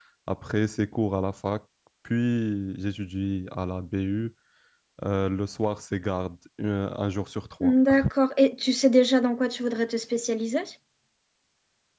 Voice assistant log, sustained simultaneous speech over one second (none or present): none